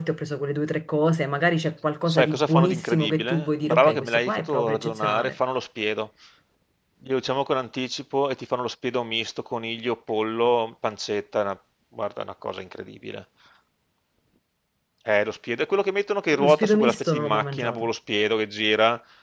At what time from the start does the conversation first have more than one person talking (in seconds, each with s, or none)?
2.1 s